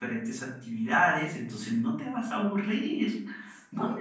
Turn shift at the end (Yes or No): Yes